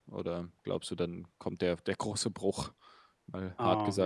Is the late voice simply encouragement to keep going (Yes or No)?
No